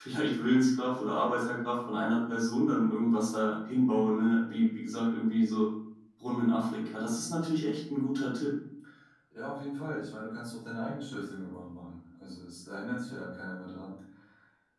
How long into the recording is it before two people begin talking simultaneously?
none

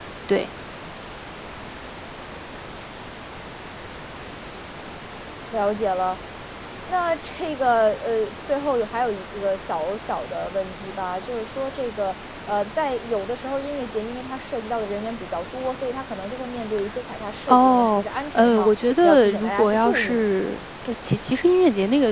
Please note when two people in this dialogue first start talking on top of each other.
17.5 s

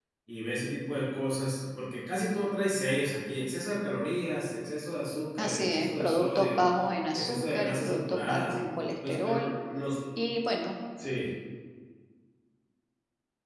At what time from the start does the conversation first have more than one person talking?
5.4 s

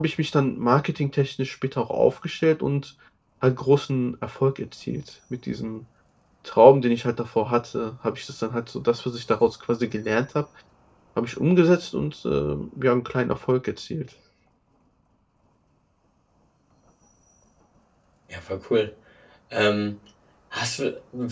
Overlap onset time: none

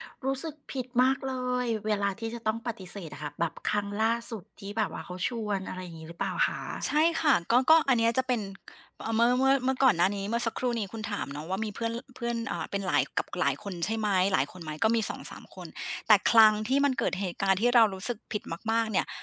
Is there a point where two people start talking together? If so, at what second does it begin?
none

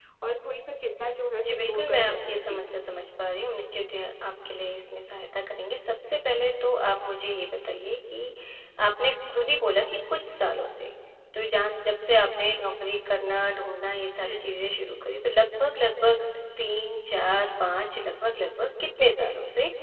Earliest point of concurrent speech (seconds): 1.4 s

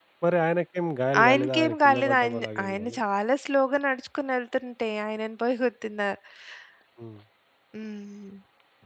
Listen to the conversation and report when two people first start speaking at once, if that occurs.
1.2 s

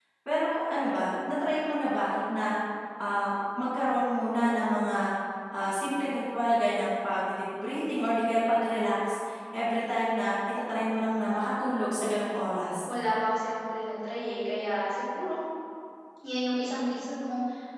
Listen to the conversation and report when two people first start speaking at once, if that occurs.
none

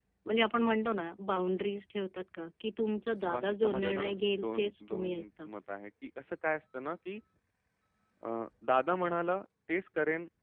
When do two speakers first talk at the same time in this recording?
3.2 s

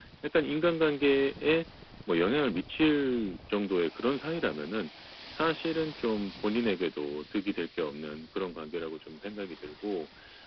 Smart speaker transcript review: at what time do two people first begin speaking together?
none

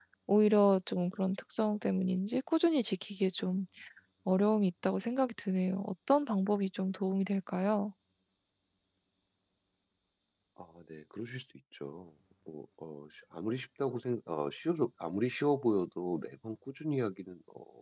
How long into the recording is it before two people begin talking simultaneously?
none

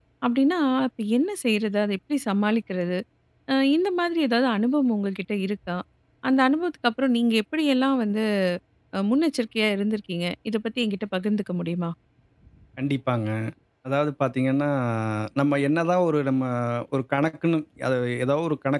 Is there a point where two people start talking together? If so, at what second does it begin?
none

